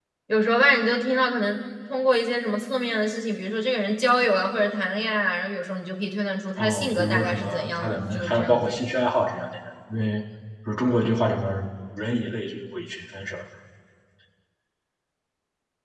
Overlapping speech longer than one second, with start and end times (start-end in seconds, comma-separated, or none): 6.6-8.7